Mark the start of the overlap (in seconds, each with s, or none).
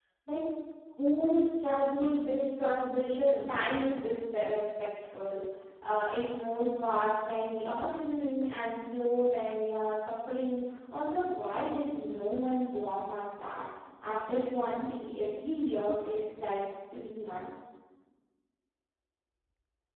none